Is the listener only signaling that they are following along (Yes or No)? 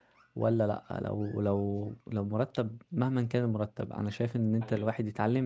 Yes